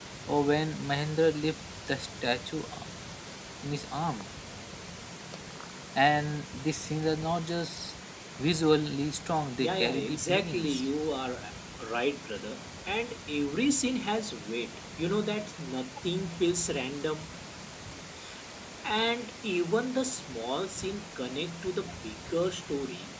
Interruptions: present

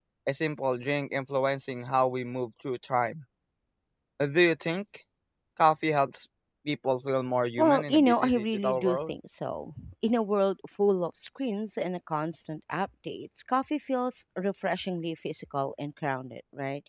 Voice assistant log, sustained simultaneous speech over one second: present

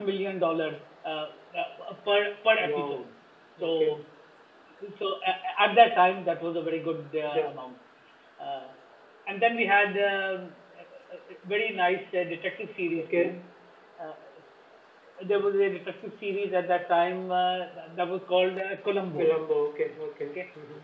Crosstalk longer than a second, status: none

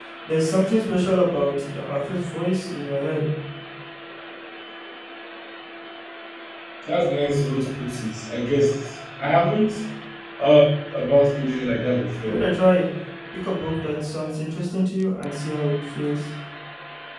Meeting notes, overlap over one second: none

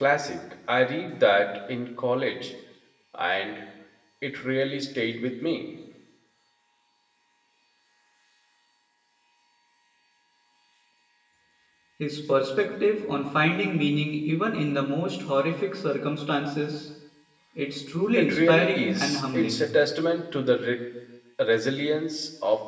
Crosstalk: present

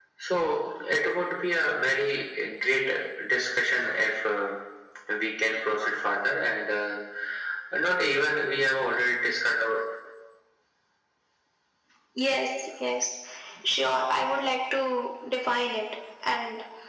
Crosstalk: none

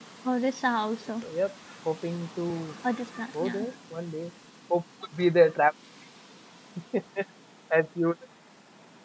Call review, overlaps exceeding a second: none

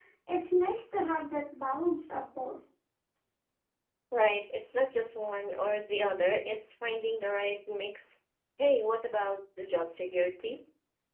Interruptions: none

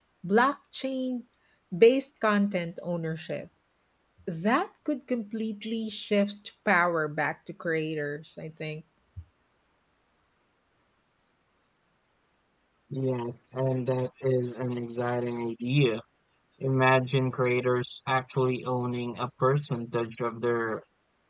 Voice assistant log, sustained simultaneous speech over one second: none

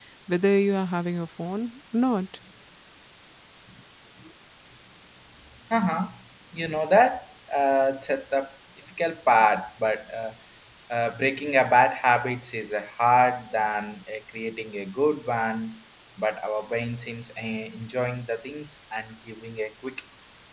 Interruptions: none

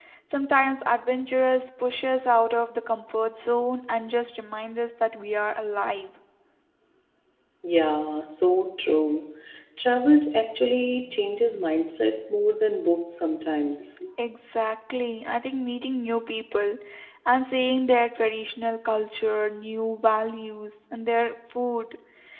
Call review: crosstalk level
none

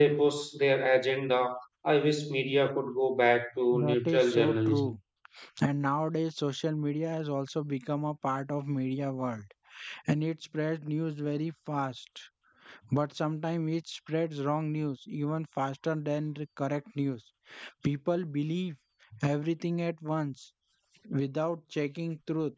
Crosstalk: present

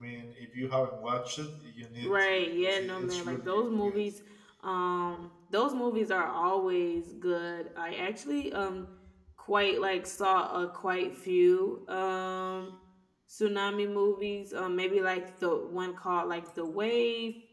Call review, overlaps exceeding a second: present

